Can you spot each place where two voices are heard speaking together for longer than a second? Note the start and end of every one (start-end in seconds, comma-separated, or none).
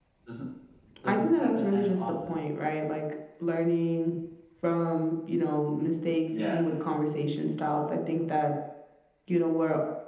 1.0-2.3